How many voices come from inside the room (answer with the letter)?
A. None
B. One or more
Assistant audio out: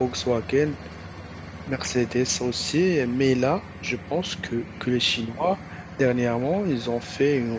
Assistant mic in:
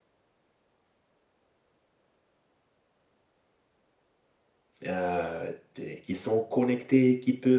B